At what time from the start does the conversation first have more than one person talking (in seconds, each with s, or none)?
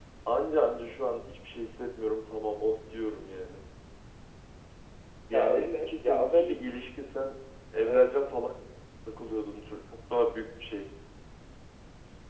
5.3 s